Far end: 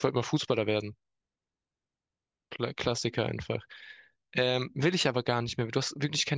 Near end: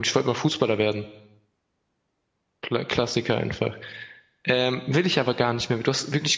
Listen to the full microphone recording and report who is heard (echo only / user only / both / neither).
echo only